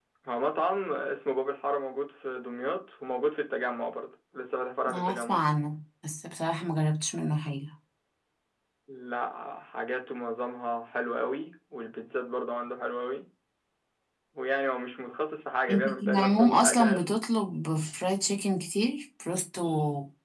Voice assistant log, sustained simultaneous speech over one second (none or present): present